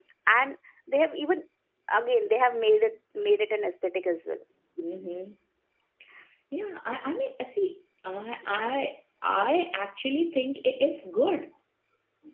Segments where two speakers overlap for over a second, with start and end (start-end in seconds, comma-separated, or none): none